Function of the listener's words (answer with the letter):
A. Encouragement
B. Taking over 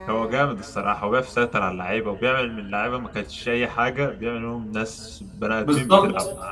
B